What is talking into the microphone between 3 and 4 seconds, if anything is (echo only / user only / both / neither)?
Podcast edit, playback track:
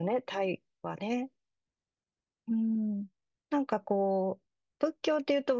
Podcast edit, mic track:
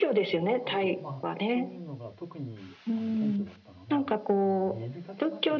both